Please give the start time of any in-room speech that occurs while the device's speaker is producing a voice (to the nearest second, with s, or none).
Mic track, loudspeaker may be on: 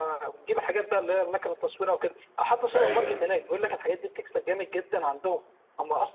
3 s